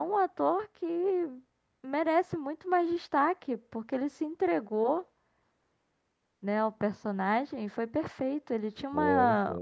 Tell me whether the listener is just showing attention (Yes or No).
Yes